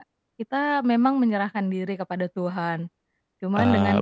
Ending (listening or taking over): listening